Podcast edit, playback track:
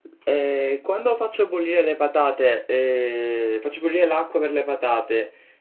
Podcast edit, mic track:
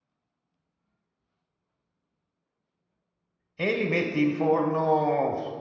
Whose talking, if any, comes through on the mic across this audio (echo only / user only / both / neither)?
user only